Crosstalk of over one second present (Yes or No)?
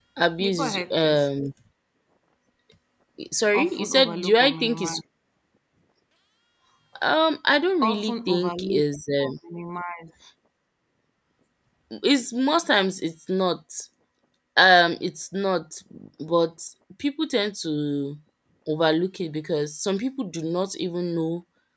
Yes